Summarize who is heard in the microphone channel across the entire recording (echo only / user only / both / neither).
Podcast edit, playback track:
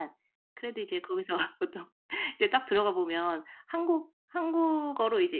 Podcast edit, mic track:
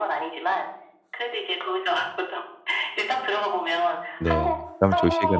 both